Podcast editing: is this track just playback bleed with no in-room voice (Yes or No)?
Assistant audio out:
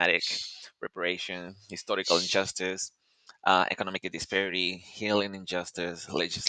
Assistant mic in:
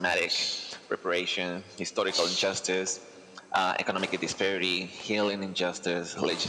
Yes